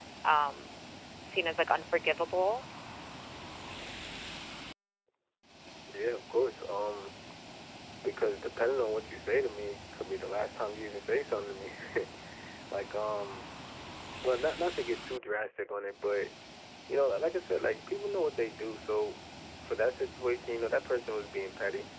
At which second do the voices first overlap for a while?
none

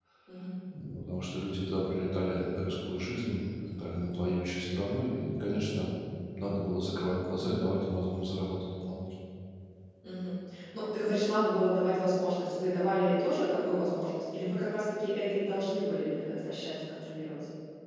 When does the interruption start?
none

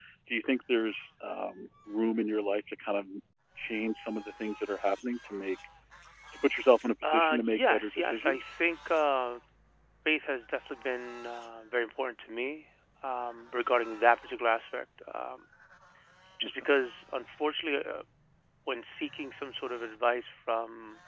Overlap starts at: 7 s

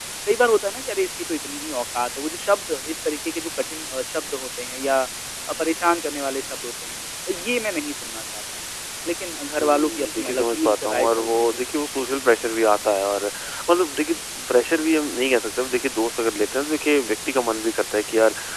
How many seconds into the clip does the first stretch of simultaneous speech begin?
10 s

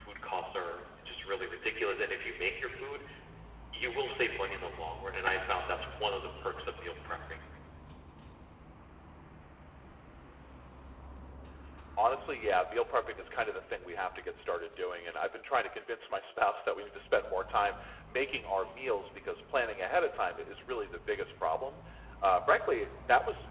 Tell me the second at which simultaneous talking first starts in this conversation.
none

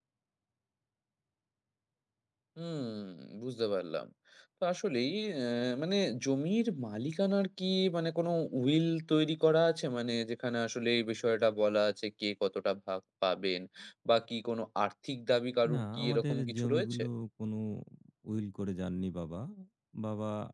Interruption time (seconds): 16 s

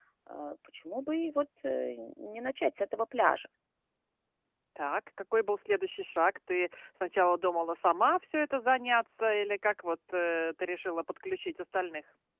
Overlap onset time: none

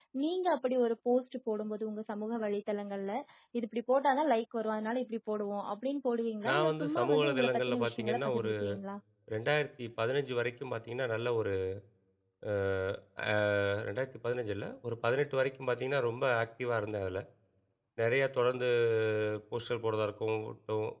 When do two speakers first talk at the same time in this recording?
6 s

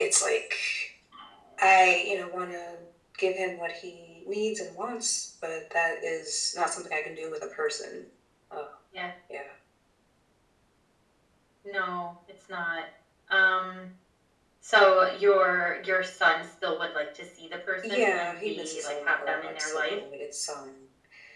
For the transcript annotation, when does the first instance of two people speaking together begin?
18 s

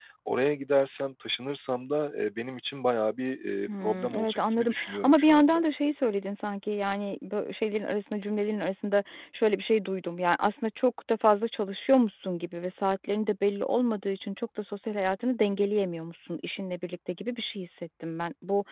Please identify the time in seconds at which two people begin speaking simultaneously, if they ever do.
4 s

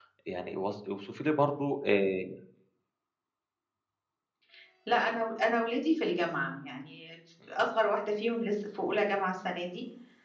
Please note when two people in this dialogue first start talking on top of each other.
none

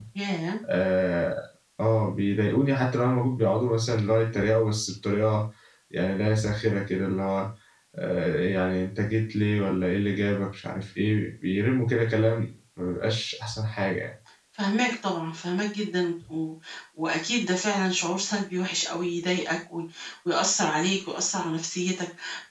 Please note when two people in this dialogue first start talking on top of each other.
none

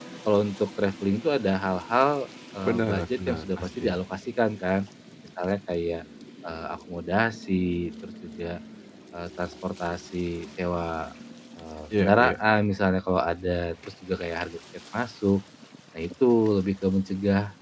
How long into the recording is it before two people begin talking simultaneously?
3 s

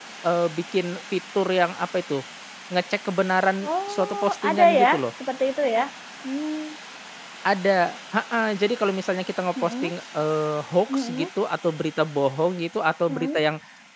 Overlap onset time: 4 s

